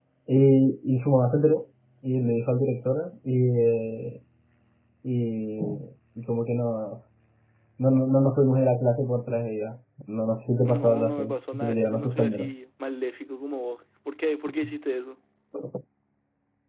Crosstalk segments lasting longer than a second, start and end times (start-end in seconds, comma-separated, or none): 10.6-12.5